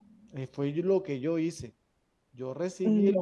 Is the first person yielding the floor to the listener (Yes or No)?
No